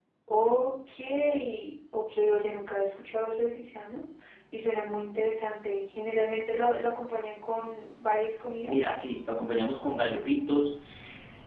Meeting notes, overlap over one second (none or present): none